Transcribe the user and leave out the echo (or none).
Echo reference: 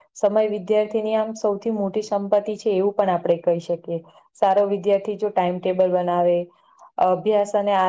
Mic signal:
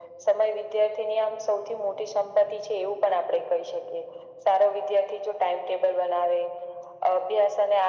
none